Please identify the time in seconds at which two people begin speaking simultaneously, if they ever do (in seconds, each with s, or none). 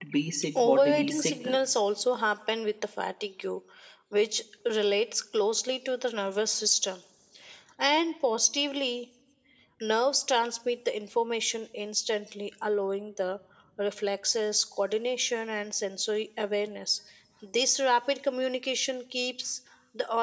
0.6 s